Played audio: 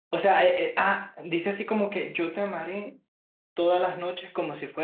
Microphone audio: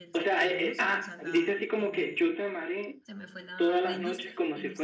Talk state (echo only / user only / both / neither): both